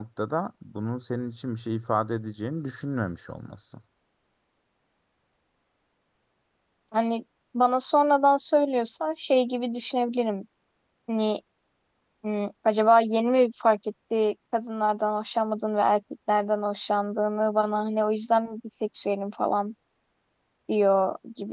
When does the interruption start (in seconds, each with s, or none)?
none